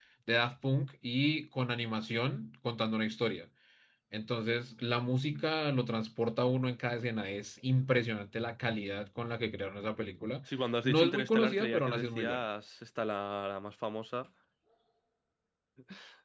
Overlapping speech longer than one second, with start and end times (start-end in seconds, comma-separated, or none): 10.8-12.4